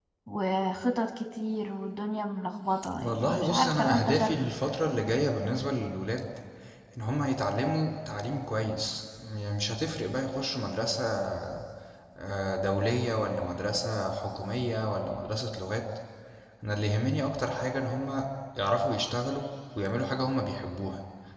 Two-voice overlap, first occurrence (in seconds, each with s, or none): 3.0 s